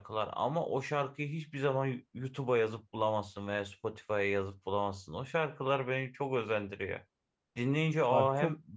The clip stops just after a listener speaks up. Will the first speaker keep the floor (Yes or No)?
Yes